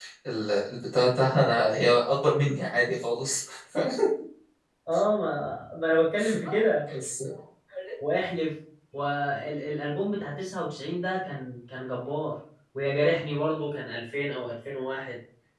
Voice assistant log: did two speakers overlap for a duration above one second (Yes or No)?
No